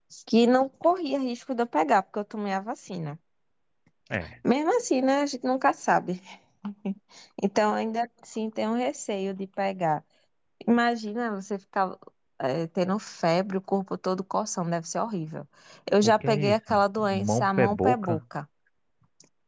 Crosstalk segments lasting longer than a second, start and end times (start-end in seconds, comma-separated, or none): 16.0-18.2